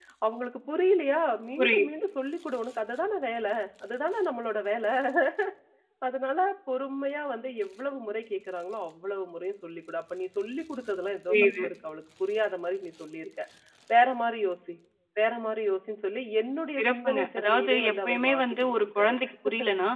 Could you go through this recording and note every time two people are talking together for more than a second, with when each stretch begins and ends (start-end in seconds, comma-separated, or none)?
16.8-19.1